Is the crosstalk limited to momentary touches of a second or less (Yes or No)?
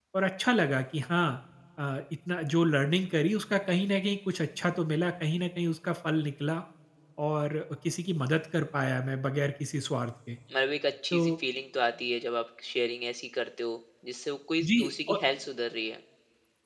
Yes